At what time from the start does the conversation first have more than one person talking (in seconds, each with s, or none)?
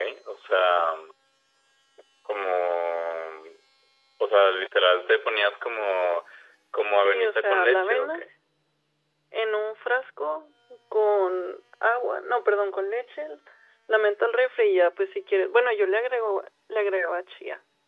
7.0 s